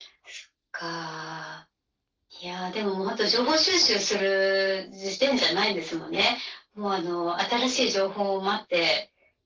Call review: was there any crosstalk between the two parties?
No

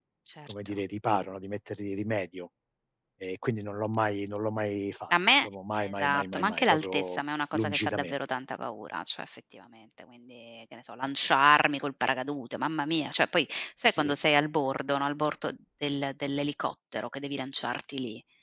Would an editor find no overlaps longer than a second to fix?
No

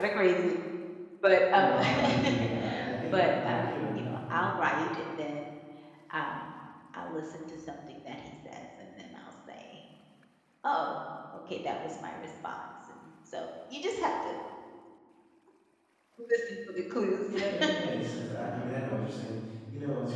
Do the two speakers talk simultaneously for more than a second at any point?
Yes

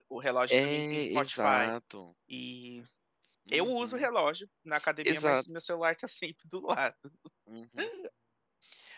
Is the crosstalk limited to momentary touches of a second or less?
No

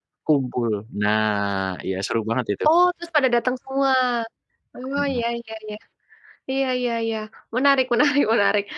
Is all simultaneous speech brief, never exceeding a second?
Yes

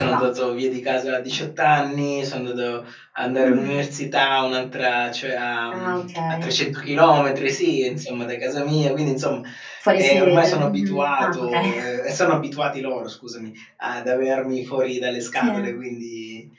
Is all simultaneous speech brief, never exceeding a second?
No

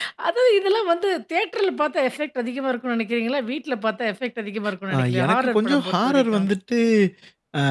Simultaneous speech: Yes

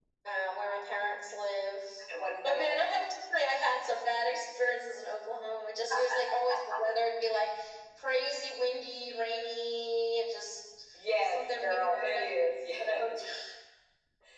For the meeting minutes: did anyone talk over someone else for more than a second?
Yes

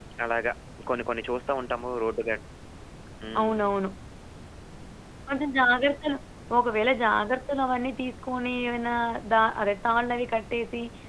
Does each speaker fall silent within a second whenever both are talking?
Yes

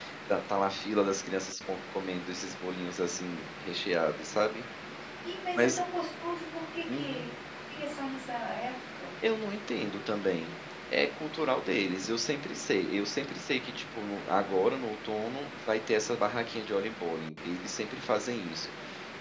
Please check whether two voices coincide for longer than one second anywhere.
No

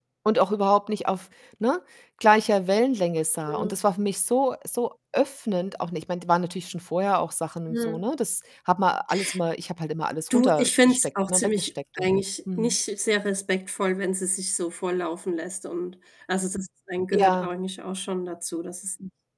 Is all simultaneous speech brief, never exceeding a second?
No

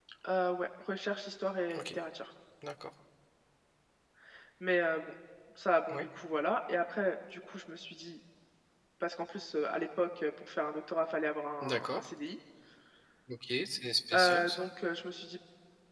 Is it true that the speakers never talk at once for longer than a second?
Yes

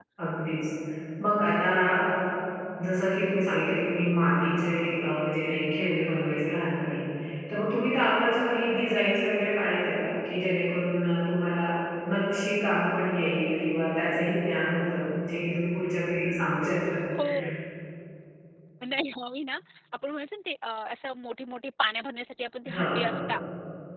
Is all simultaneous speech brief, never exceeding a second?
Yes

